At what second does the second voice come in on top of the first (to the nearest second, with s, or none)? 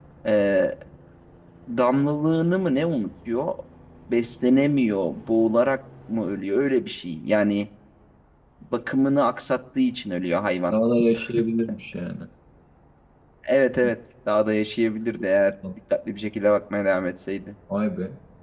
none